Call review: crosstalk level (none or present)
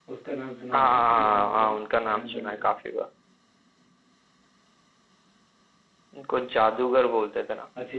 present